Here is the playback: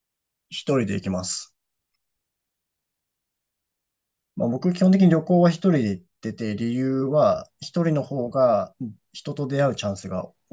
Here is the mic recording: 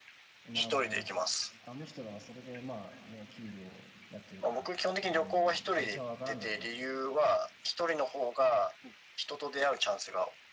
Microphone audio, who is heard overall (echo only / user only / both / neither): both